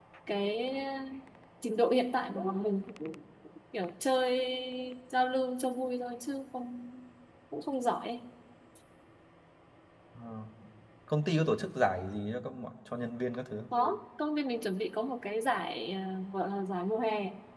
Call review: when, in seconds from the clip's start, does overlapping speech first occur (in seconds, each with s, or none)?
none